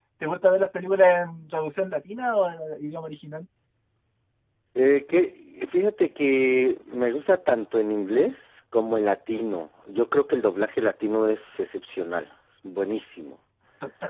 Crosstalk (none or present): none